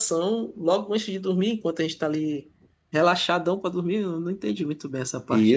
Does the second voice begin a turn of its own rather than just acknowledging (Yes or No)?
Yes